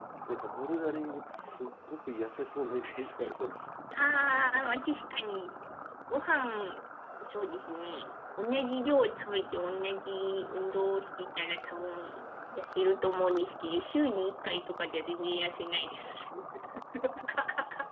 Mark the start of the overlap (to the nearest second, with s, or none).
none